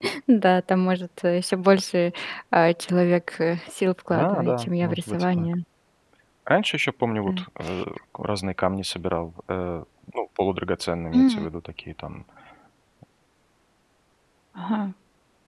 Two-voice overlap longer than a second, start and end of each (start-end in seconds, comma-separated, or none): 4.1-5.5